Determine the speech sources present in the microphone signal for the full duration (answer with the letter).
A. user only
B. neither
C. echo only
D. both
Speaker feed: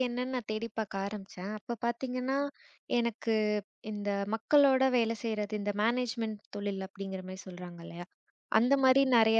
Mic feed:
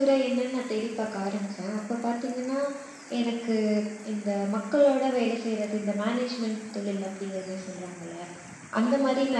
C